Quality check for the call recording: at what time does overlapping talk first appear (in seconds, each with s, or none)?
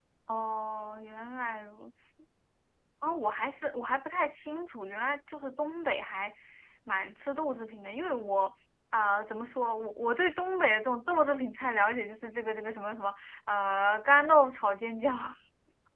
none